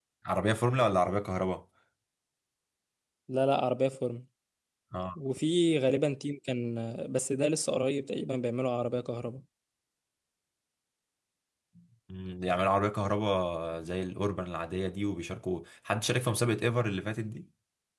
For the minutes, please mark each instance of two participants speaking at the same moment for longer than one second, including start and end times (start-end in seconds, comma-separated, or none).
none